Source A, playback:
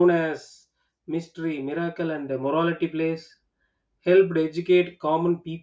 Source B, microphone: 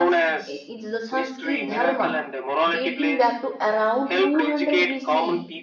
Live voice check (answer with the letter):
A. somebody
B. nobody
A